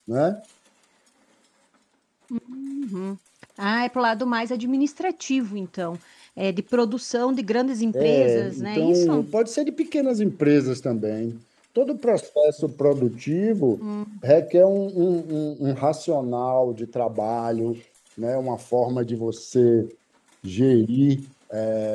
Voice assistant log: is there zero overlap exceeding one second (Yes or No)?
No